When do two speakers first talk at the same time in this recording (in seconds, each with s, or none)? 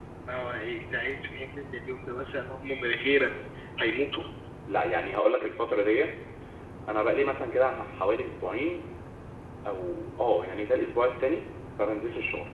none